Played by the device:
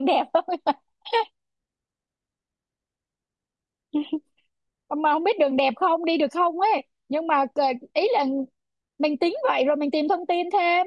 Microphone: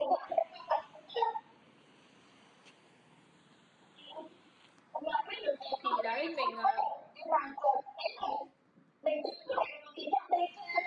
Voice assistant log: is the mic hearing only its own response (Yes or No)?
No